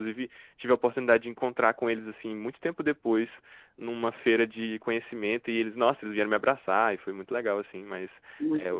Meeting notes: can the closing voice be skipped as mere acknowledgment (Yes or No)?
Yes